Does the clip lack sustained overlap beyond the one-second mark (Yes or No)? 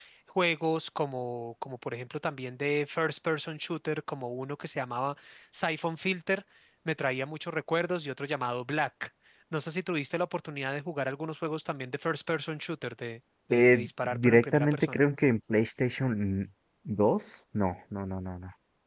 No